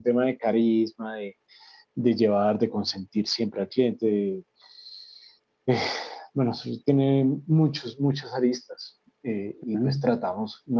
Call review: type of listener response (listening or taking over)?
listening